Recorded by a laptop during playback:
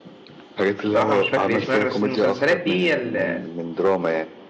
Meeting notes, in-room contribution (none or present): present